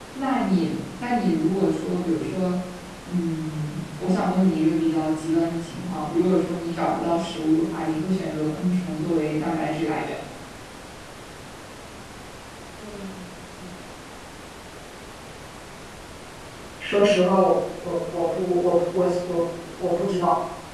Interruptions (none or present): none